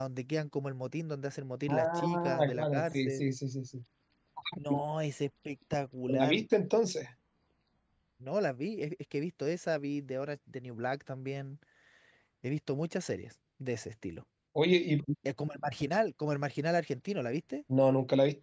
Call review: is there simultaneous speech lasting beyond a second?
Yes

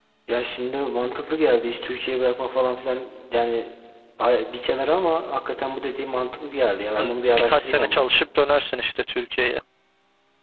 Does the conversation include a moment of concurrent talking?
Yes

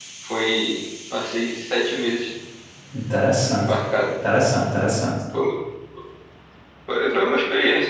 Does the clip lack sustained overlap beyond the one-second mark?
Yes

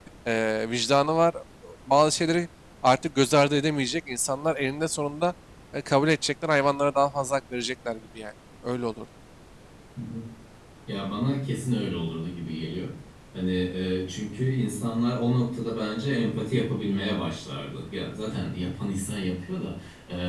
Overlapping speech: No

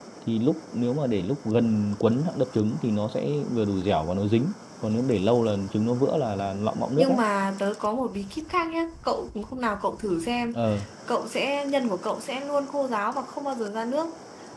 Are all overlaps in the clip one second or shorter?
Yes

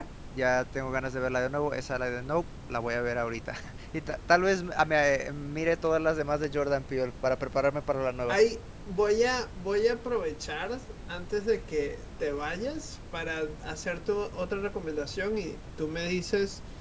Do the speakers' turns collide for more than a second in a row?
No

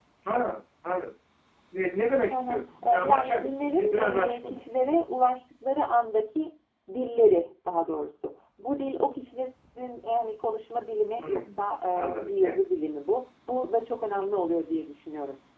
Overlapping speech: Yes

